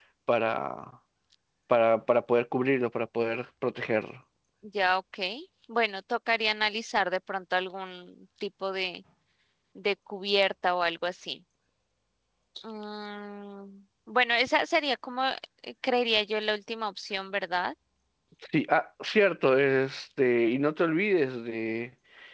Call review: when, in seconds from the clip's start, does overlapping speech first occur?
none

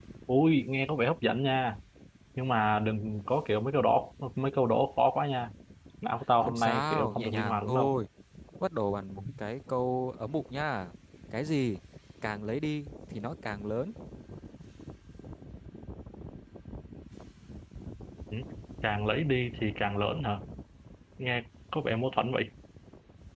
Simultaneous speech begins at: 6.4 s

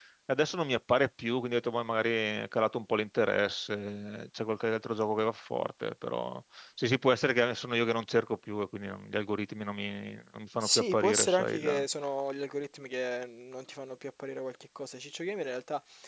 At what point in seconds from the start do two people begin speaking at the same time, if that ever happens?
10.5 s

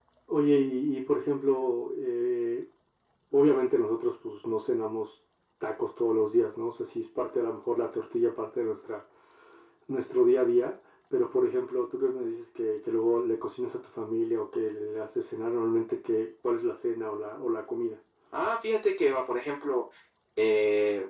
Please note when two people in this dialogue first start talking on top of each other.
none

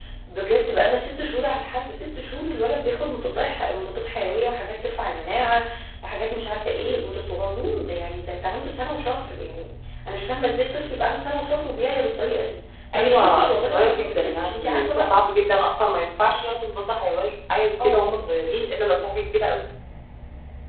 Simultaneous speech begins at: 12.9 s

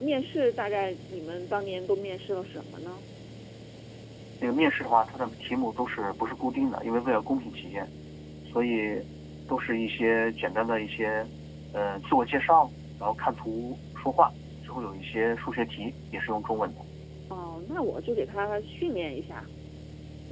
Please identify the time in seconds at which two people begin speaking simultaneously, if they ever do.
none

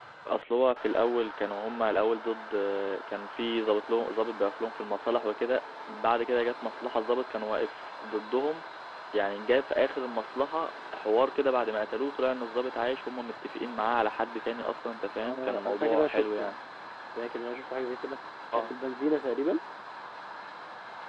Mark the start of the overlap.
15.2 s

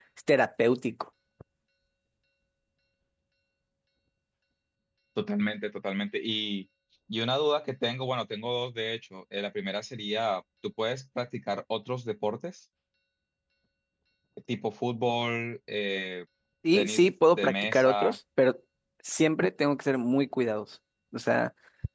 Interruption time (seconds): 16.7 s

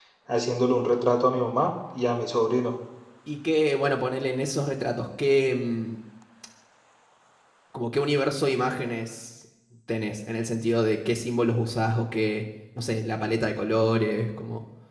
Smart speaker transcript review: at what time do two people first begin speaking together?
none

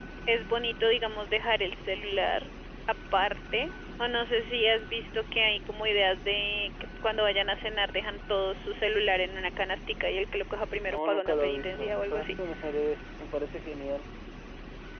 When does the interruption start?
10.8 s

